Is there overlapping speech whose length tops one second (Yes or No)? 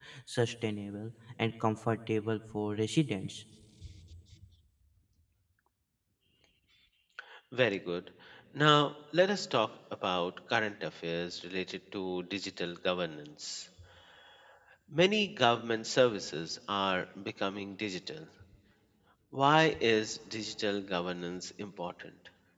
No